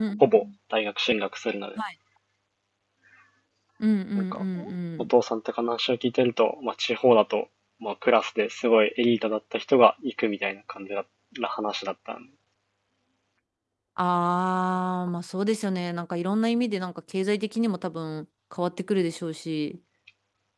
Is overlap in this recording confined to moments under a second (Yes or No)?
Yes